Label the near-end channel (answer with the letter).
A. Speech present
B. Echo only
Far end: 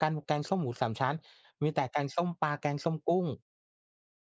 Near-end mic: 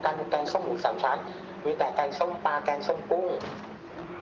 B